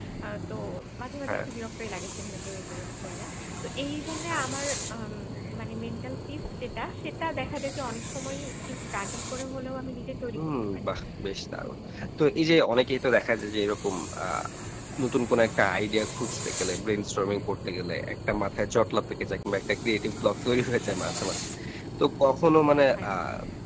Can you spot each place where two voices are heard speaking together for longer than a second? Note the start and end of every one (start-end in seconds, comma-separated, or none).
none